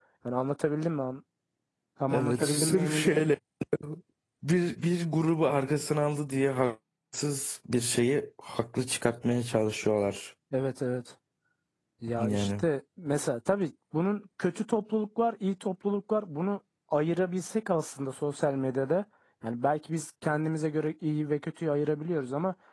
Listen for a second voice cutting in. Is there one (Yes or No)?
Yes